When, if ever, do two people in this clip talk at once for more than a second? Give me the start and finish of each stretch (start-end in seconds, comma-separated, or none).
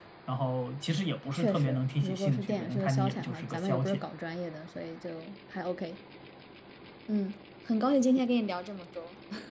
1.3-4.0